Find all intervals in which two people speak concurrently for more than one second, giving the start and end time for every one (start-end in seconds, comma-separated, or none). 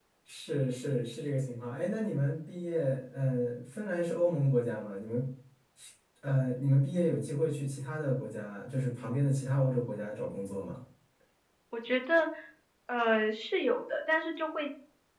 none